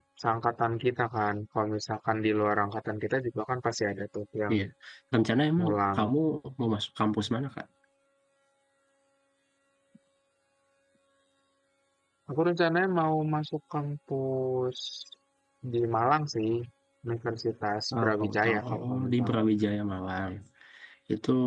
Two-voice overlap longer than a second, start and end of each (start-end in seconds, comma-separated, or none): 17.9-19.4